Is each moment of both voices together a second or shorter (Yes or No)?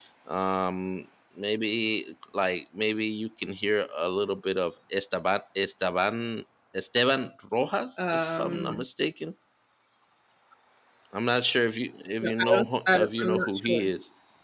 No